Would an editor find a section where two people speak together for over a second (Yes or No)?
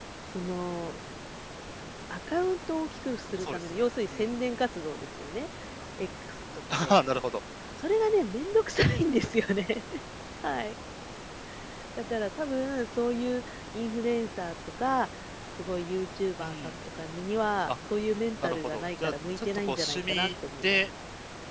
Yes